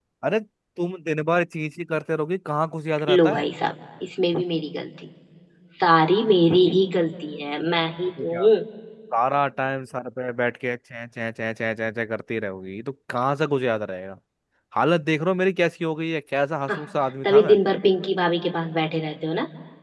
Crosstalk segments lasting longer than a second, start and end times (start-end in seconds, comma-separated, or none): none